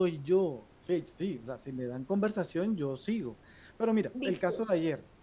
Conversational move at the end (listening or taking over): listening